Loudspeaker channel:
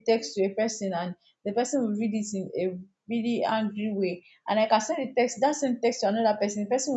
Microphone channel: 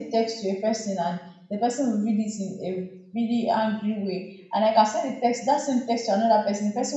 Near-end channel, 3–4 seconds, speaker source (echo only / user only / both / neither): echo only